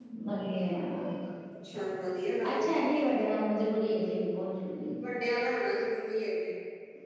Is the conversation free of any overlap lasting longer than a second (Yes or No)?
Yes